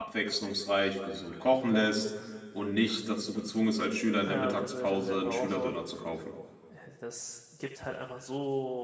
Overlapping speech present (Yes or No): Yes